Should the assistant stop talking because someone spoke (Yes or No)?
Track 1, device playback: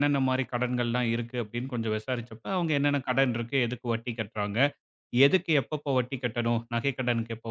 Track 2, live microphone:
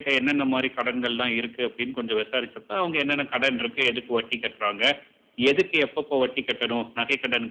No